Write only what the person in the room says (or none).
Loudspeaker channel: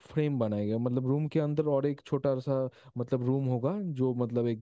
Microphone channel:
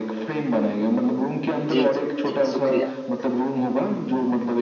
जी जी जी शुक्रिया